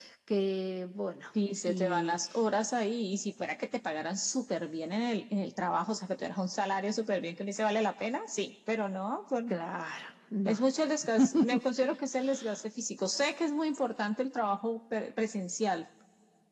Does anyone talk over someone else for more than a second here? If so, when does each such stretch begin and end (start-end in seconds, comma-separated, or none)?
none